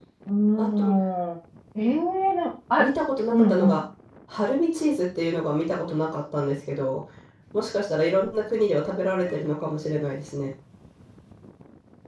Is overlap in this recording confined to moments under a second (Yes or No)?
Yes